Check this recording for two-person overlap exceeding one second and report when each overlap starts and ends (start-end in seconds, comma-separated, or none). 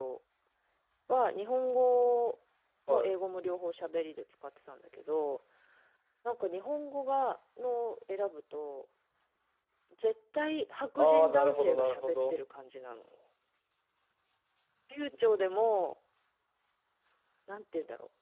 11.0-12.4